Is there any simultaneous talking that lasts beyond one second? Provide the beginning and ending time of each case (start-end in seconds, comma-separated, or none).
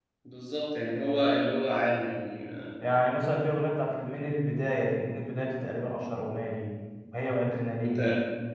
none